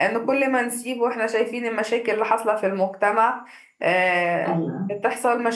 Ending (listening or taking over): listening